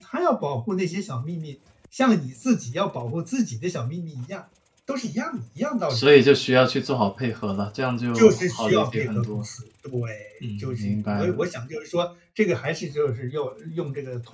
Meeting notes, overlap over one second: present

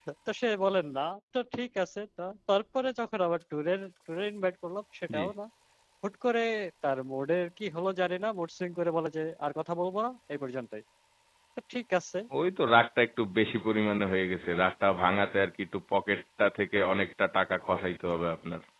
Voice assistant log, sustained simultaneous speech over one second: none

